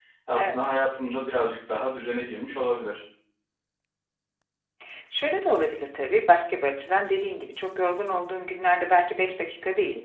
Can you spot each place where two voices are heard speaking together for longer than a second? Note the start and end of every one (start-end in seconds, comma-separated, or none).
none